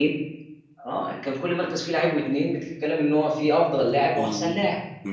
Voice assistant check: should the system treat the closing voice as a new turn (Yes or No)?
Yes